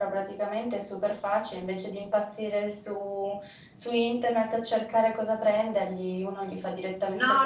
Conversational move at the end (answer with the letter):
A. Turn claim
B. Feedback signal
A